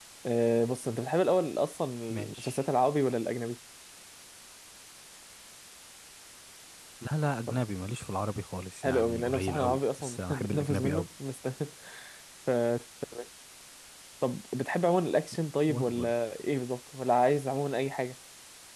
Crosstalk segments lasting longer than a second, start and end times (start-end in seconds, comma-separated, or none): 8.8-11.1